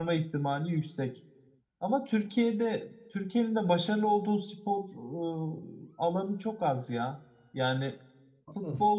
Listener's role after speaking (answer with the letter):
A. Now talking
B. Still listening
B